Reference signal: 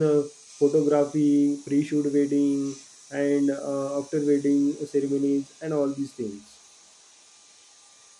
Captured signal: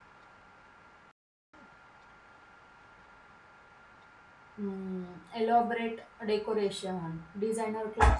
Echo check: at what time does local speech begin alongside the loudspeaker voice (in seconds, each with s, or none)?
4.6 s